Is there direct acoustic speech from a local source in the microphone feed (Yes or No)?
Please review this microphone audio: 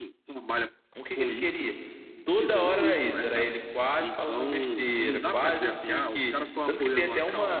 Yes